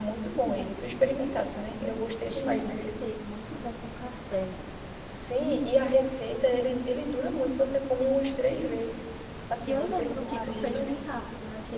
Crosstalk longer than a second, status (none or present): present